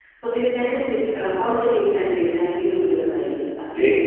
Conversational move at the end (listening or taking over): taking over